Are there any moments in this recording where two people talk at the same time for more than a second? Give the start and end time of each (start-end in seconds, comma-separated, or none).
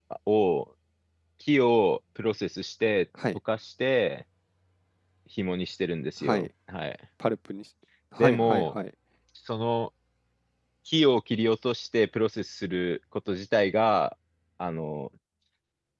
none